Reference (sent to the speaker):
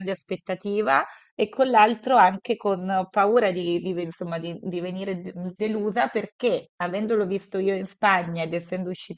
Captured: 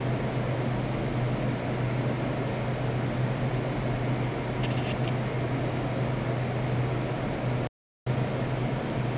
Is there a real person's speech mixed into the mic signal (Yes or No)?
No